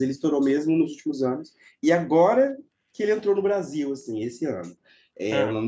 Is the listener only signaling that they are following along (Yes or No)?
Yes